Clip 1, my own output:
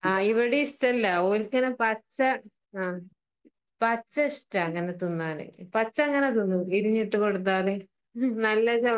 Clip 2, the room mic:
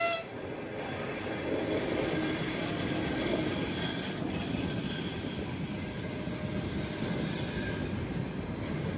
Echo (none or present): none